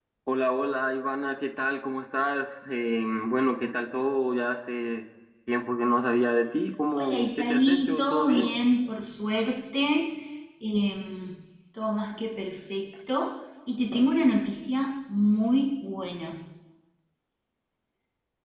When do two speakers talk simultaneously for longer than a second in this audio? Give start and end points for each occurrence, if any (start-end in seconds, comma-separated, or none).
6.9-8.5